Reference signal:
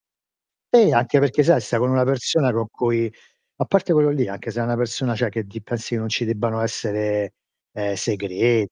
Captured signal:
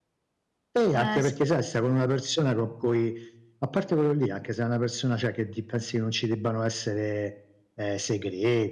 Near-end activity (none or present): present